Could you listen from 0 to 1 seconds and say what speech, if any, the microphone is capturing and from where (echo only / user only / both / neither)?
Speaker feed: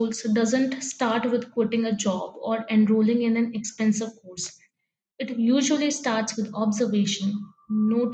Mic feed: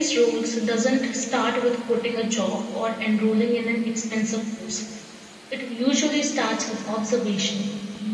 echo only